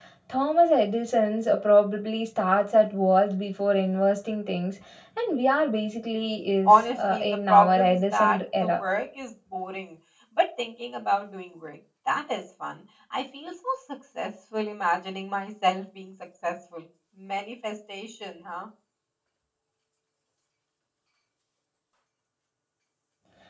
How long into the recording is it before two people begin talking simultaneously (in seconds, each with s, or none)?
6.7 s